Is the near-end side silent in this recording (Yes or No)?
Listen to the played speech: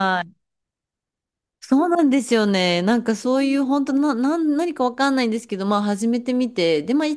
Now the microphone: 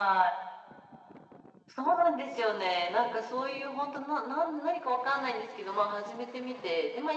Yes